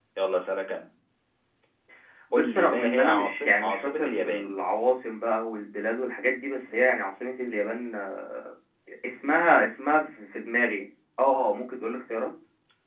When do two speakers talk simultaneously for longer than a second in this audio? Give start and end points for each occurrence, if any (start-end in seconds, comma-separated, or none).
2.3-4.5